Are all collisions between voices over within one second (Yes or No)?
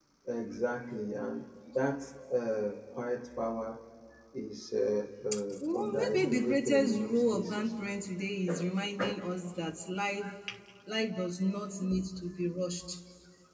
No